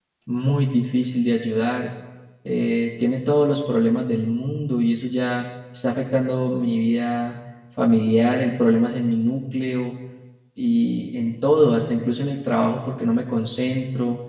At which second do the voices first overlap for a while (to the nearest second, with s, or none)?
none